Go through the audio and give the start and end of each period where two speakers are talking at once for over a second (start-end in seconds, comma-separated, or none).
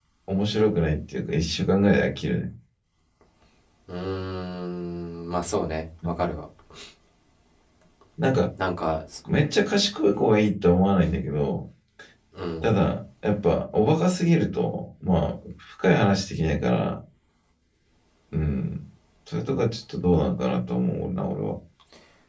none